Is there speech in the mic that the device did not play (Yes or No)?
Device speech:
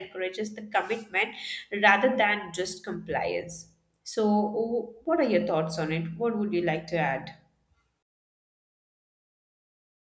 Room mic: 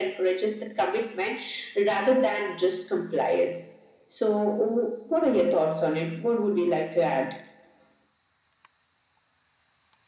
No